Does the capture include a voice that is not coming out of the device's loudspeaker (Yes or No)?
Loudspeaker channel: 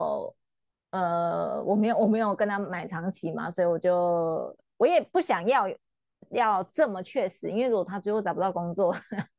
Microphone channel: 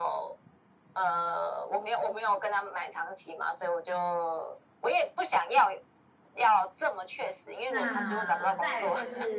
Yes